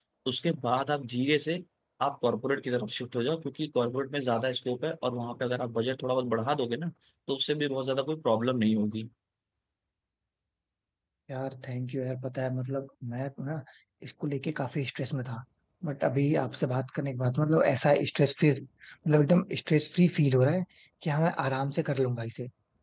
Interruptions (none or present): none